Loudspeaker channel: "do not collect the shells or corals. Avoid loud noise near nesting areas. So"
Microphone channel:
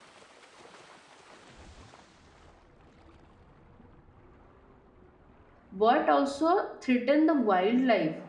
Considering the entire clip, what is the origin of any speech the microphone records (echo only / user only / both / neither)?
user only